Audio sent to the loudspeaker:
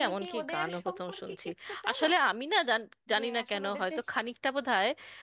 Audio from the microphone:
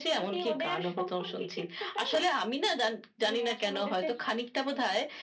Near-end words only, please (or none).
none